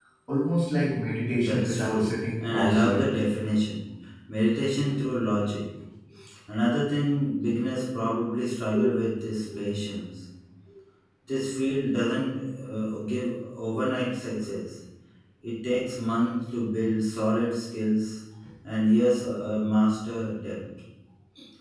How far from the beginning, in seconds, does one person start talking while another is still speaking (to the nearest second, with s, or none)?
1 s